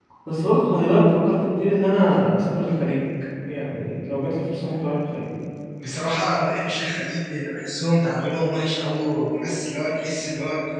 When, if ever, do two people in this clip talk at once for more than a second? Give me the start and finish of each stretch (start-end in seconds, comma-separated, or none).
none